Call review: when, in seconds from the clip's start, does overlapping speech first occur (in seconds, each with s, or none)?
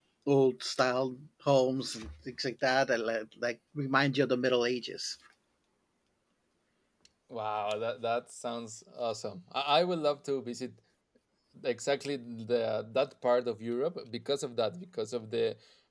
none